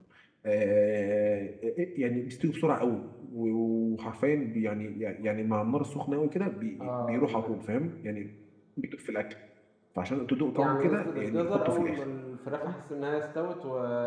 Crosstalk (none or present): present